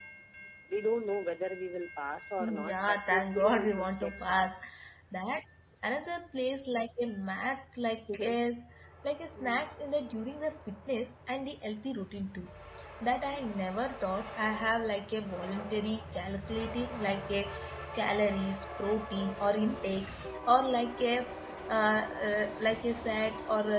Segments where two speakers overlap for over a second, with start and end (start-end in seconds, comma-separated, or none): 2.4-4.5